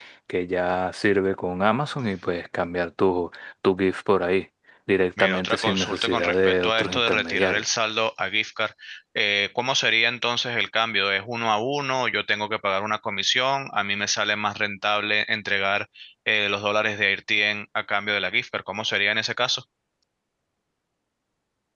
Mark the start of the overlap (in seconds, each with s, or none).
5.2 s